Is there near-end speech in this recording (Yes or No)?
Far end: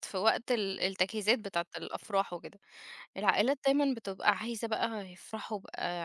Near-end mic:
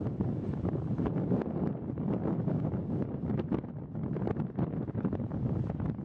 No